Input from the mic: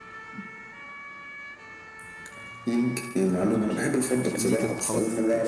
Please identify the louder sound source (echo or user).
echo